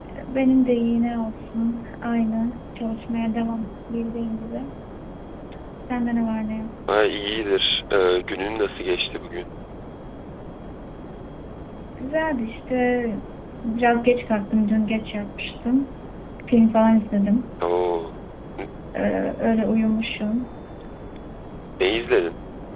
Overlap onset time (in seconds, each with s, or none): none